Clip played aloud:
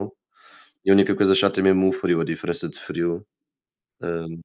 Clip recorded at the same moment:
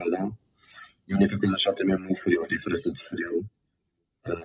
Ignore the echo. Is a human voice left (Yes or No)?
No